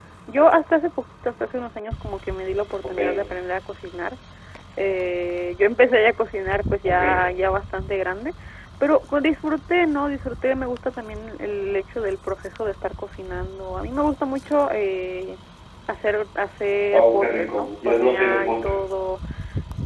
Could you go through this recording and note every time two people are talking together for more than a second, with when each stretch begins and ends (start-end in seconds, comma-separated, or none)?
16.9-18.8